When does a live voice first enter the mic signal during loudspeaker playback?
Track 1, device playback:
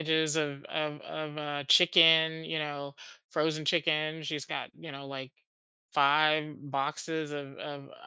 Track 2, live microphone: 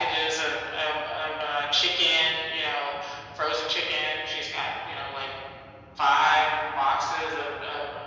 none

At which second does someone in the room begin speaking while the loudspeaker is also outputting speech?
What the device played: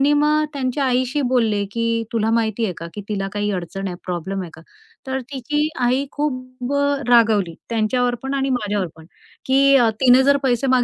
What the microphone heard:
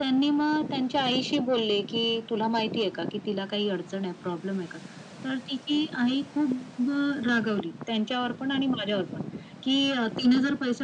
none

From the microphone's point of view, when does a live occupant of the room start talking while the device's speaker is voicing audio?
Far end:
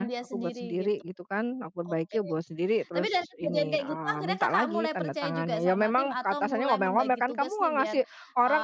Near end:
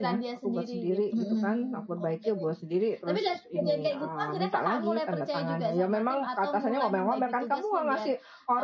1.1 s

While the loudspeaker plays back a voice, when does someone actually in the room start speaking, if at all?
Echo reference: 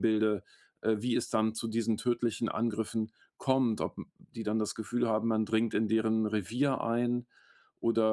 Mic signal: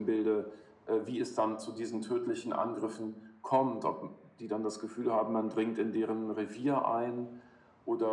none

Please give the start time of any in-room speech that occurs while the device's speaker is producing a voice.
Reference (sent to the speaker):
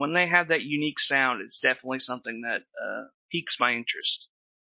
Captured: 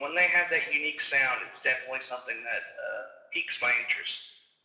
none

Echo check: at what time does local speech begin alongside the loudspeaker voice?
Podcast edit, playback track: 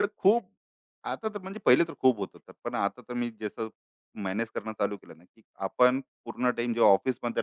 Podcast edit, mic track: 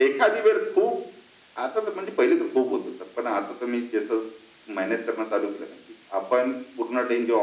none

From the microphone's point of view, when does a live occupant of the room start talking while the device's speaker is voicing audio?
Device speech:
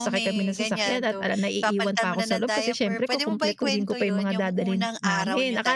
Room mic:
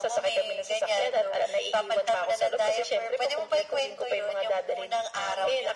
none

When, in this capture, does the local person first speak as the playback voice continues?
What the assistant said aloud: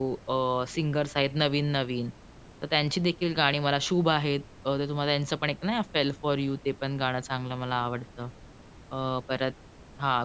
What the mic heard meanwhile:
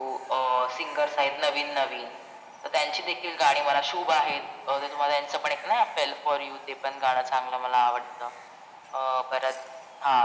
none

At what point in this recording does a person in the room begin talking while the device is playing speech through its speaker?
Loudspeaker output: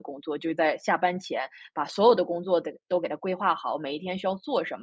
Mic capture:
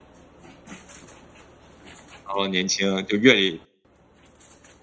2.2 s

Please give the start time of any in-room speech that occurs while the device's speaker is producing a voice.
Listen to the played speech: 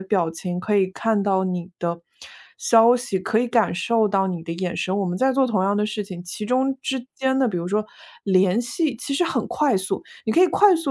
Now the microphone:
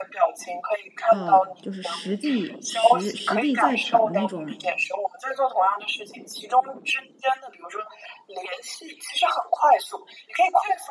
1.0 s

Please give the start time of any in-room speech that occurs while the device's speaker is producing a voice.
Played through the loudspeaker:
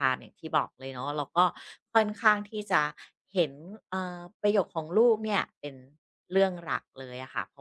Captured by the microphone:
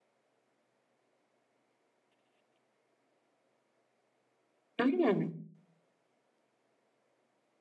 4.8 s

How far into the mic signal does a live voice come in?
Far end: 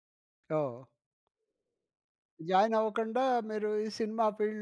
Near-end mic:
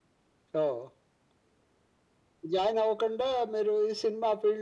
none

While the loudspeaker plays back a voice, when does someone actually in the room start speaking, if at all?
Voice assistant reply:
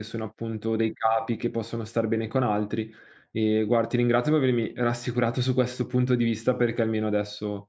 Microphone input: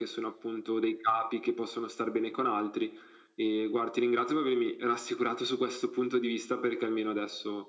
none

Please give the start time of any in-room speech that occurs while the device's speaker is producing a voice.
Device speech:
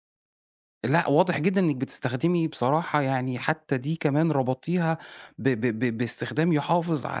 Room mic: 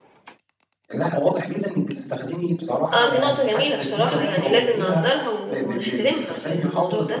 2.9 s

